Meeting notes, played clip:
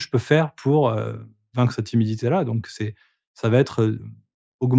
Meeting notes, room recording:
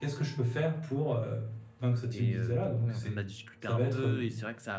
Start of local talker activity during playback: 2.1 s

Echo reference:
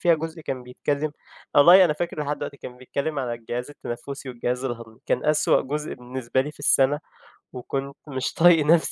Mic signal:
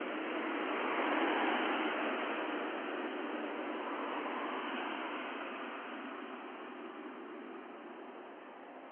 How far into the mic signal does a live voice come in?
none

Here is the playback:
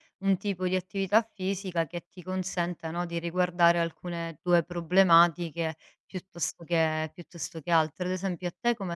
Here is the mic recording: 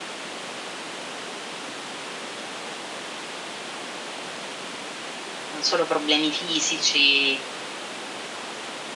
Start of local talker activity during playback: 5.5 s

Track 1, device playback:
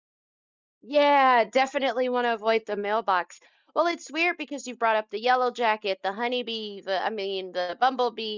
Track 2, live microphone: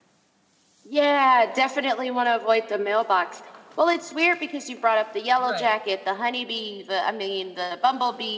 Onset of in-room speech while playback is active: 5.4 s

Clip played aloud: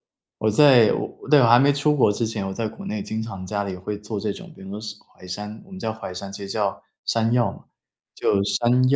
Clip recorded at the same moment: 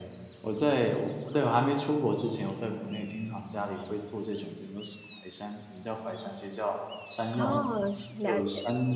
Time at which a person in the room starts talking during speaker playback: 7.3 s

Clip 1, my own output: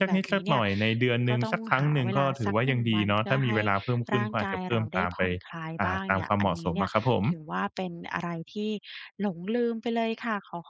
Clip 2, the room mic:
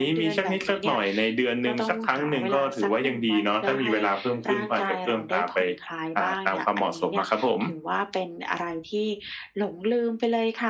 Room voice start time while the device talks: none

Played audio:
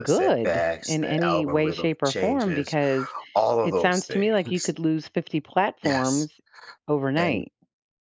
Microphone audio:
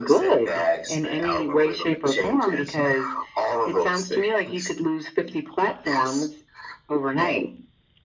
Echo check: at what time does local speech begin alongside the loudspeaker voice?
none

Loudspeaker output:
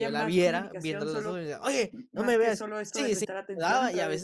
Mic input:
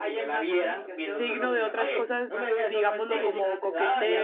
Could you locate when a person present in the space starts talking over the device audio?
0.9 s

